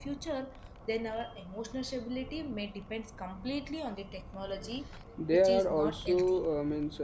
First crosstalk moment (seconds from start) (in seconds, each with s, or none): 5.3 s